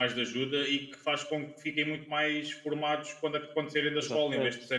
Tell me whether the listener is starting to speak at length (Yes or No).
No